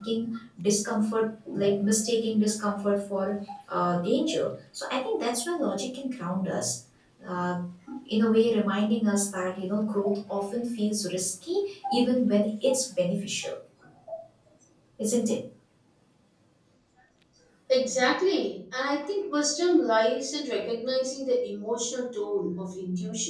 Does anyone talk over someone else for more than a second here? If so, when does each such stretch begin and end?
none

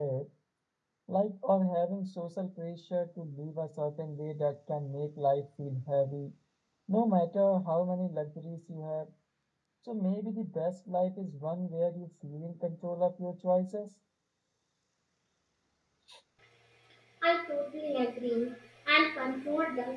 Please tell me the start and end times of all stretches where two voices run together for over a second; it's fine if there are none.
none

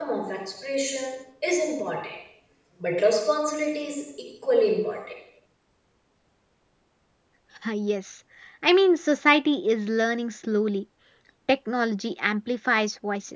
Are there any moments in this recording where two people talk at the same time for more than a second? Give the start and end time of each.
none

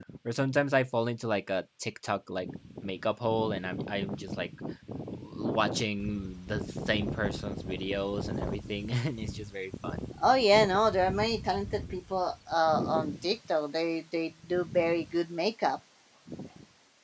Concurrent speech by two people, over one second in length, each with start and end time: none

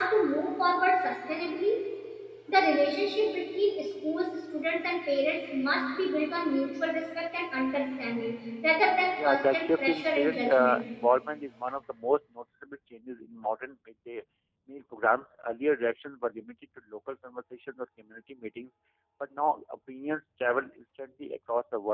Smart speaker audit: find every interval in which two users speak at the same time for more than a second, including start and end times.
9.2-10.8

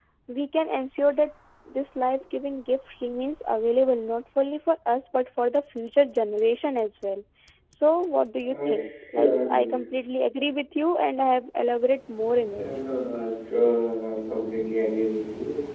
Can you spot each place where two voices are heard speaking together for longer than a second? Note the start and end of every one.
8.4-9.8

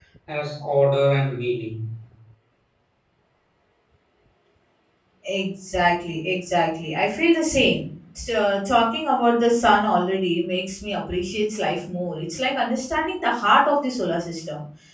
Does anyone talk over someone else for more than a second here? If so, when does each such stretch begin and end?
none

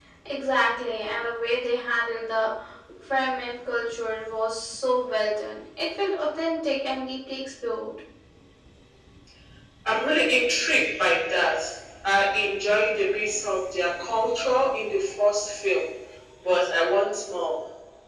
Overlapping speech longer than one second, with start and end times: none

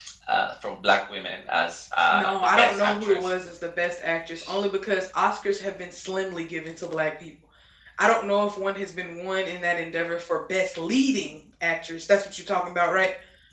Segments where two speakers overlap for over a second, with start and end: 2.1-3.3

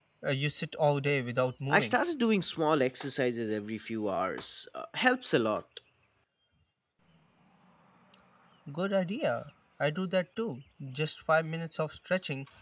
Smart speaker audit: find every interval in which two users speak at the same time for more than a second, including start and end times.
none

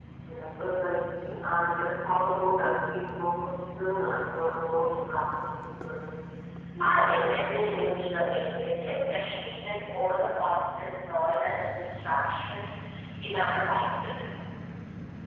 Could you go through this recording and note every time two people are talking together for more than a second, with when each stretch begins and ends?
6.8-9.2

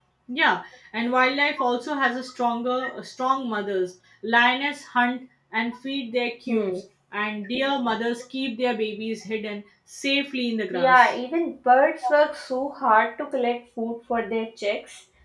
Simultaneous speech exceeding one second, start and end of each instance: none

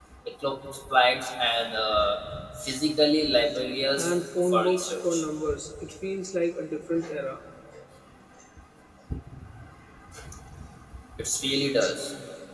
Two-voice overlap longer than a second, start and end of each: 4.0-5.2

